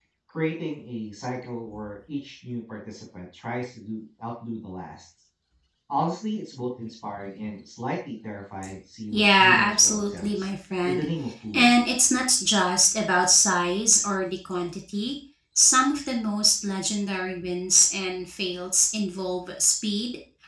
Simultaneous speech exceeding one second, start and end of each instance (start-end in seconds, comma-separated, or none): 9.1-10.5